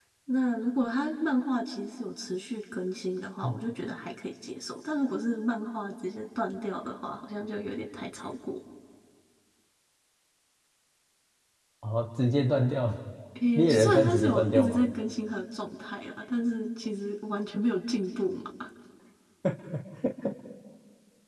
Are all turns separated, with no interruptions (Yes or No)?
No